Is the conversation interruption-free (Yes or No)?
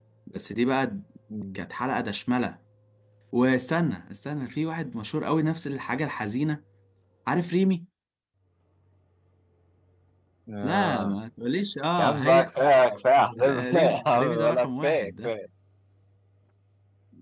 No